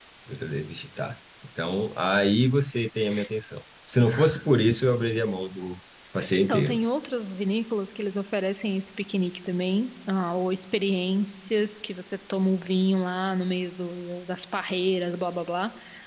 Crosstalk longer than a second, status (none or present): none